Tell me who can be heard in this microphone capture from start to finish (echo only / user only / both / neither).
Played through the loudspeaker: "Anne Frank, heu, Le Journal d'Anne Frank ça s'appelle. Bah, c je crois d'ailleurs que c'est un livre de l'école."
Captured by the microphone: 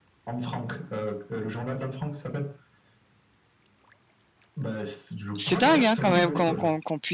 both